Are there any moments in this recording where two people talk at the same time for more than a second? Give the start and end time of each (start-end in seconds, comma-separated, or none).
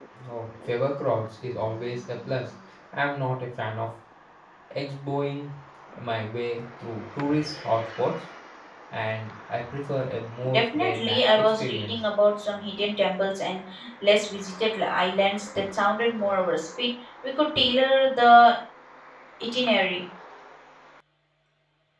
10.5-11.9